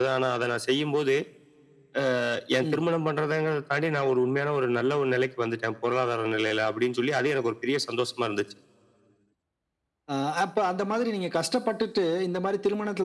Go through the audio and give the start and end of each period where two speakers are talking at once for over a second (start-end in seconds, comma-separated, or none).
none